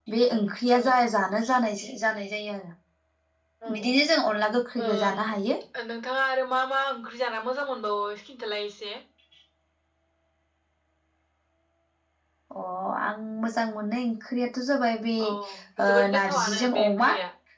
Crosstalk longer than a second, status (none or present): present